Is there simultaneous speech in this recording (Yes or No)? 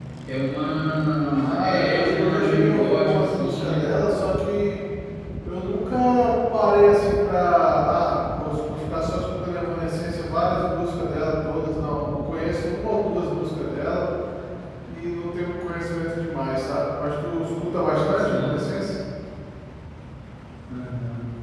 Yes